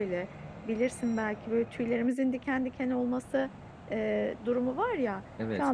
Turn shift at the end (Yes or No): No